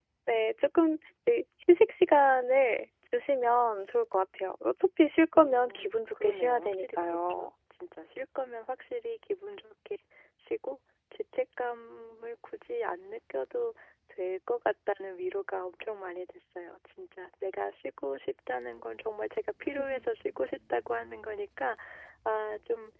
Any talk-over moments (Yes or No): Yes